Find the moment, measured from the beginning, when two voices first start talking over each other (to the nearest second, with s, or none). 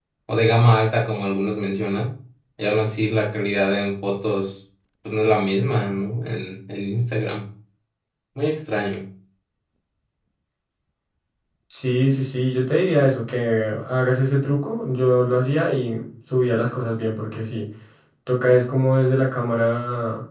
none